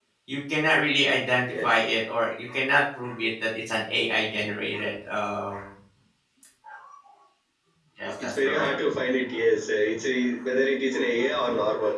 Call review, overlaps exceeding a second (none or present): none